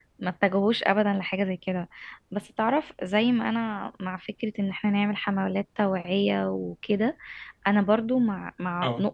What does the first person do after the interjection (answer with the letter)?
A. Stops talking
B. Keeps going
B